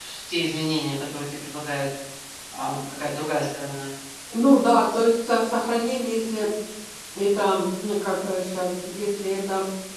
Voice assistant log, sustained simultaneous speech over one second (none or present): none